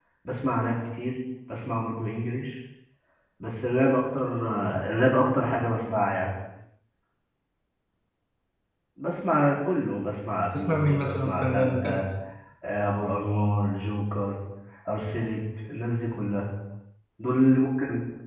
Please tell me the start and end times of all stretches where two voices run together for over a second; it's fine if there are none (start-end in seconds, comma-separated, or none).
10.5-12.0